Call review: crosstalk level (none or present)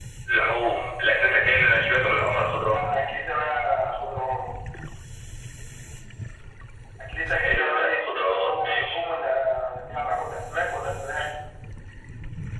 present